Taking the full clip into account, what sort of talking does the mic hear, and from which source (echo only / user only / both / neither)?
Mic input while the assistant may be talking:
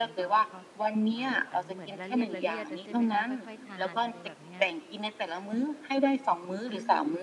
both